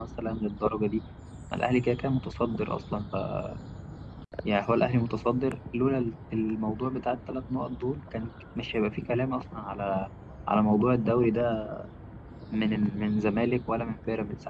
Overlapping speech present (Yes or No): No